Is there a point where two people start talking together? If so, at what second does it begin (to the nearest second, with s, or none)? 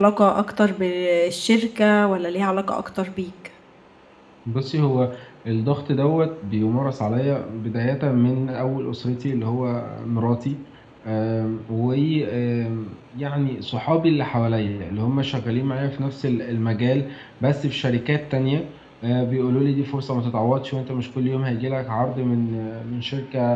none